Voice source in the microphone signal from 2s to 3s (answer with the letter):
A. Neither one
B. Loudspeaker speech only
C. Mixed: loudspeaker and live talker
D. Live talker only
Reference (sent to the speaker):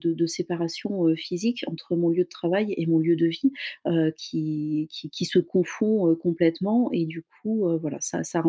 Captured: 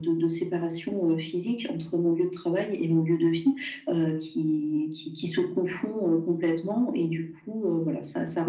B